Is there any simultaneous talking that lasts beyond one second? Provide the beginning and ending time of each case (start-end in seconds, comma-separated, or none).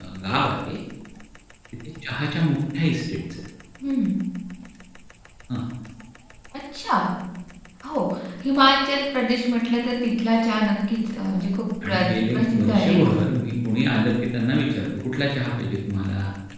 11.9-13.2